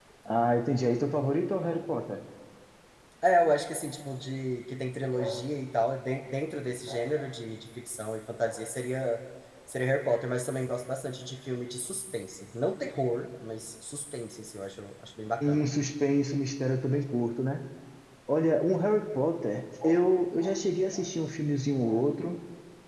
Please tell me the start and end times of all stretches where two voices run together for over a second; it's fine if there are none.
none

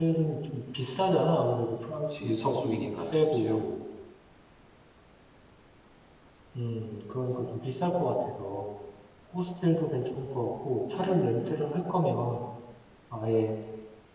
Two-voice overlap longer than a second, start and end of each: 2.2-3.6

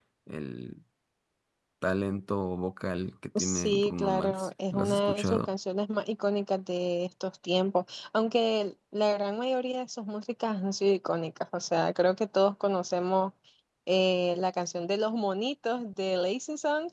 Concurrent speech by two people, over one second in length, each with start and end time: 3.4-5.5

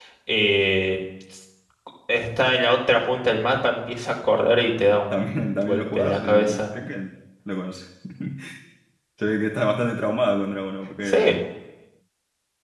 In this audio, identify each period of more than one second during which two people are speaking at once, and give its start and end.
5.1-6.7

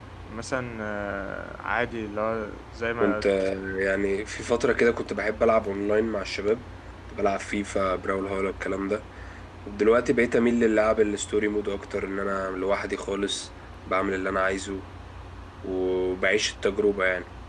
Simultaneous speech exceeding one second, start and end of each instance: none

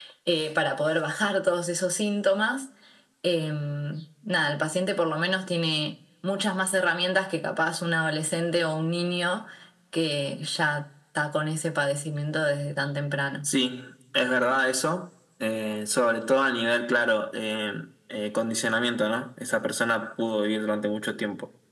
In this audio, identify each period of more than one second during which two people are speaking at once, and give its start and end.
none

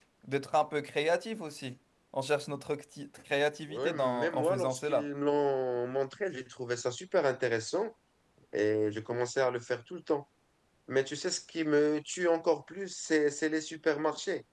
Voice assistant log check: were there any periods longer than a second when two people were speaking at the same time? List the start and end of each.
3.7-5.1

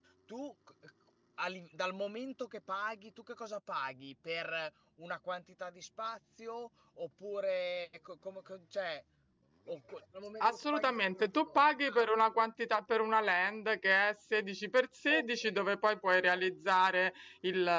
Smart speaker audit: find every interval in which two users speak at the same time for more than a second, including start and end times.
10.4-12.0

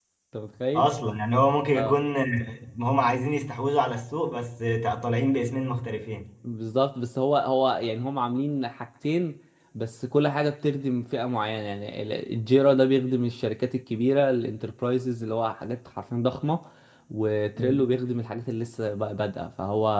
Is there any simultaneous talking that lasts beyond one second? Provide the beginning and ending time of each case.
none

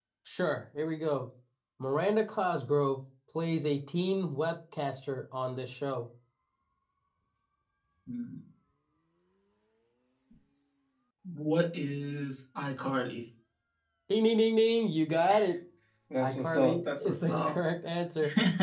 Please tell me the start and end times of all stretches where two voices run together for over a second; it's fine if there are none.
16.2-17.6

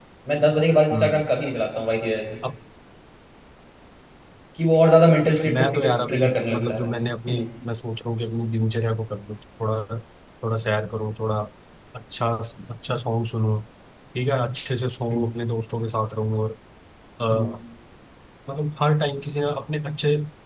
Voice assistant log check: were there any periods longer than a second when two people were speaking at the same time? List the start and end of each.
5.5-6.9

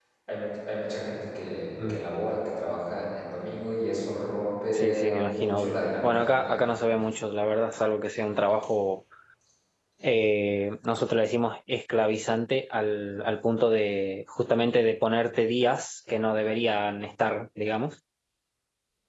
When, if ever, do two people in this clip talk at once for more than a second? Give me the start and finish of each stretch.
4.7-6.6

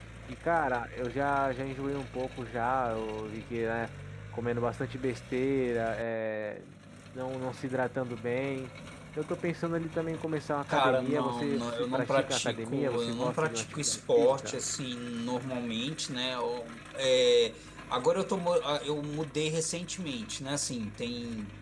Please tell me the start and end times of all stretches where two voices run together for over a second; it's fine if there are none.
10.7-14.6

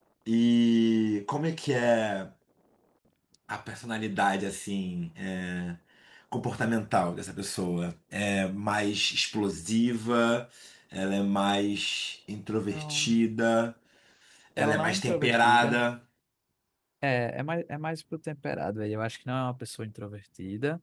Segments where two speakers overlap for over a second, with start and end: 14.6-15.8

